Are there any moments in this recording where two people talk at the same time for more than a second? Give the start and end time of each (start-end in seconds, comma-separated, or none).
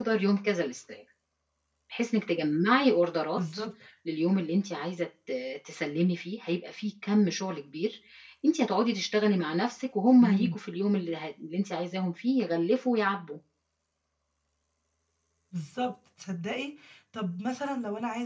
none